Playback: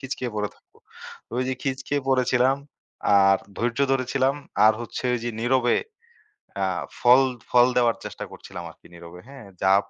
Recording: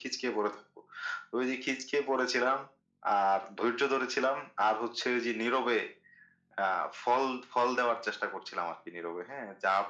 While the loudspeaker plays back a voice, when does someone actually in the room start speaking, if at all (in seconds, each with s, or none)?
none